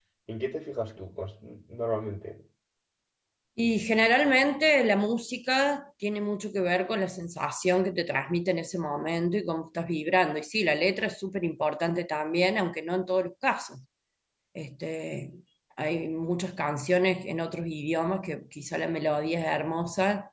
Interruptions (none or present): none